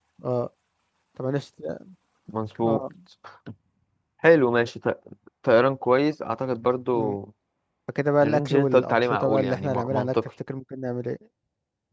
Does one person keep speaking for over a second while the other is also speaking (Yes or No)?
Yes